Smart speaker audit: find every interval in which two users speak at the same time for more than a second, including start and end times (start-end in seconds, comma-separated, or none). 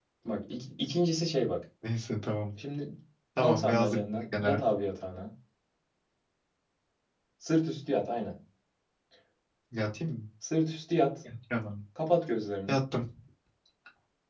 3.4-4.6